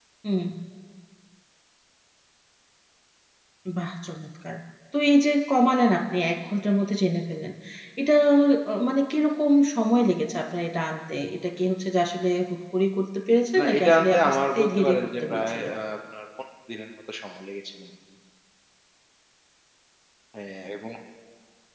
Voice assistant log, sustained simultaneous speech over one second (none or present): present